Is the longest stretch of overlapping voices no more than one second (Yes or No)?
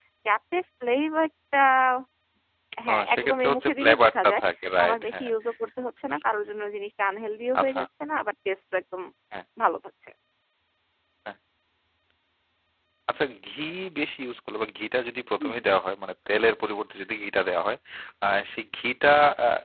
No